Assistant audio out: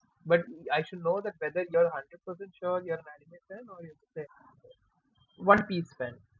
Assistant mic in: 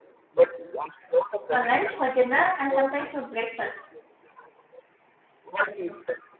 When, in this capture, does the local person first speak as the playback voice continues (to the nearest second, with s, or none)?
1 s